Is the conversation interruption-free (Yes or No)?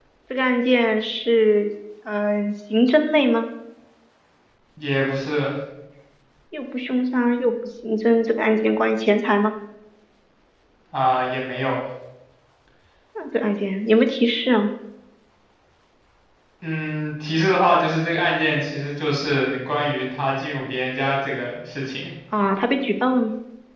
Yes